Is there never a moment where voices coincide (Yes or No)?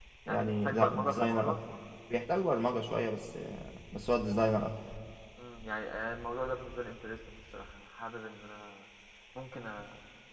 No